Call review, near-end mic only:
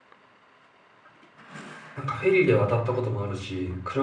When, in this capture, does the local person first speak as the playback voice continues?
1.9 s

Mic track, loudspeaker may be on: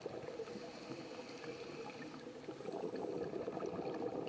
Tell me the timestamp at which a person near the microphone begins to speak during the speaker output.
none

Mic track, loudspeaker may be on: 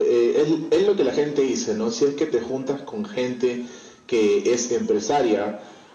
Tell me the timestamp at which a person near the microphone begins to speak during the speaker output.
none

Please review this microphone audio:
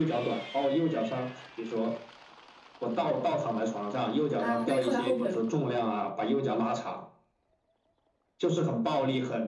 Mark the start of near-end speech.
4.4 s

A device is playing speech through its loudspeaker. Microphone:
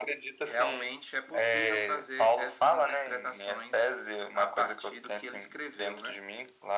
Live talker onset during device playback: none

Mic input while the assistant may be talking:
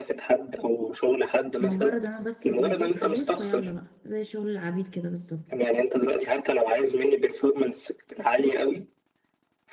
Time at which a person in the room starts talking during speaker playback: 1.6 s

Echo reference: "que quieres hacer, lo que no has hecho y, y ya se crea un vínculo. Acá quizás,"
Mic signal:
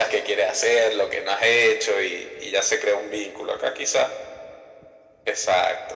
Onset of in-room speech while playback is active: none

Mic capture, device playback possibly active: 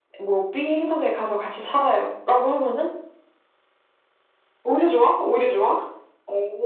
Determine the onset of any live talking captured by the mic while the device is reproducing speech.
none

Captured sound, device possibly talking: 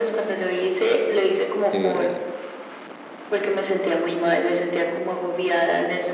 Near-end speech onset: 1.7 s

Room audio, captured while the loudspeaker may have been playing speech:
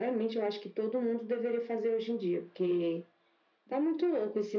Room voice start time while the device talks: none

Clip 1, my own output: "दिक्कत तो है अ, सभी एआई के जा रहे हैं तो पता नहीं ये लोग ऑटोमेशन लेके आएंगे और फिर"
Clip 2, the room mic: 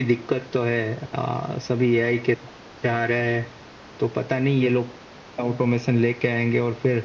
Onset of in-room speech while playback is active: none

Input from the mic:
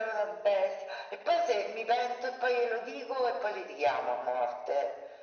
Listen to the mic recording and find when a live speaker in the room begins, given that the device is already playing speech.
none

